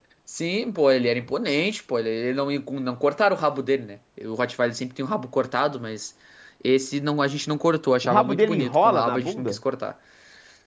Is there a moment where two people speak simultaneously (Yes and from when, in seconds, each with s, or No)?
Yes, from 8.0 s